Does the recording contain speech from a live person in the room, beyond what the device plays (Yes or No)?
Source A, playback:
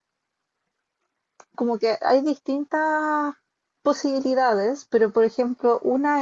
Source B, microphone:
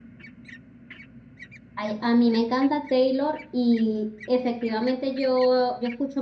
Yes